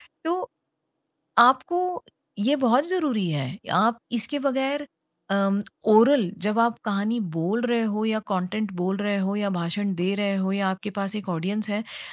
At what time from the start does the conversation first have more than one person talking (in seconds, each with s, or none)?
none